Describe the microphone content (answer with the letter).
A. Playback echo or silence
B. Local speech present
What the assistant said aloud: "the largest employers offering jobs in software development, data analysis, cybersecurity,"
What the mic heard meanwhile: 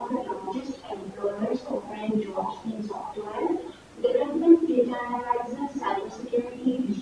A